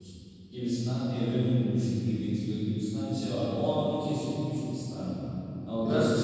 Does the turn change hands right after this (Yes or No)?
No